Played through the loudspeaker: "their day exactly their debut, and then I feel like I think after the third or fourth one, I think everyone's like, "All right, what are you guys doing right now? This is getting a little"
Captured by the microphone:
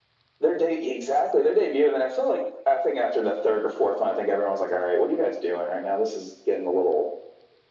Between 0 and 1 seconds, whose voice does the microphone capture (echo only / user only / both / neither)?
echo only